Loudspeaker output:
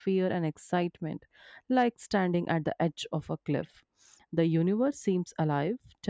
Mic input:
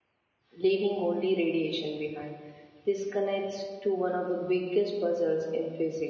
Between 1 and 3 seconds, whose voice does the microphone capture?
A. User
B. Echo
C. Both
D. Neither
A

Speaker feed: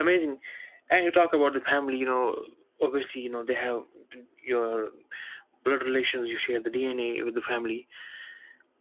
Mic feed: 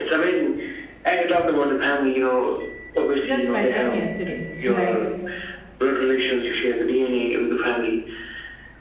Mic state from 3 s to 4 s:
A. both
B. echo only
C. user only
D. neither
A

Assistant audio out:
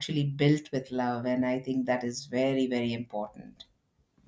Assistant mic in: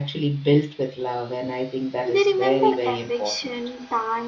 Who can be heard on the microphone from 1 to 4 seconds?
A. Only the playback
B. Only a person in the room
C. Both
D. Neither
C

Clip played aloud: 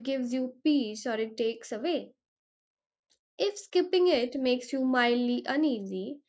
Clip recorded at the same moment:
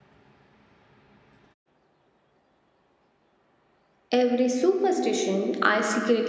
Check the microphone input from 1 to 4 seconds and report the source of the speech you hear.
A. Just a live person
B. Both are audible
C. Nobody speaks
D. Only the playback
C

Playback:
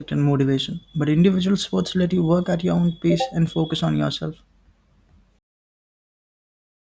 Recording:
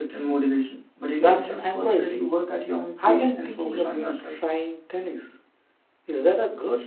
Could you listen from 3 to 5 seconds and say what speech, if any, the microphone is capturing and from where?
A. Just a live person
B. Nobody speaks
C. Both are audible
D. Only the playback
C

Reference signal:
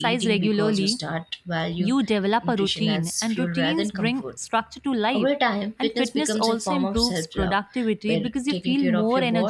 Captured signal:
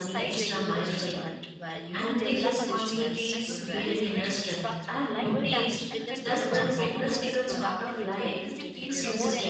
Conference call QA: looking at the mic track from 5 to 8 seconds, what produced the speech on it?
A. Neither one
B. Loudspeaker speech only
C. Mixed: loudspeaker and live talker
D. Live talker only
C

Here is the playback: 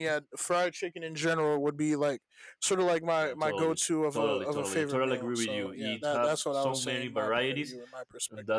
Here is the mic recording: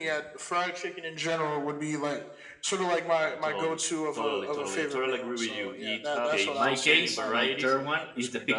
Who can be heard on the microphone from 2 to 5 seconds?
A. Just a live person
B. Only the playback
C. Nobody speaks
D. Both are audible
B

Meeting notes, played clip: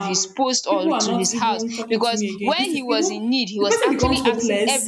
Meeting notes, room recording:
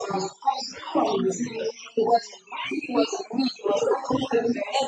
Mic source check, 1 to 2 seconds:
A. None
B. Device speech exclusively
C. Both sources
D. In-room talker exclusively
B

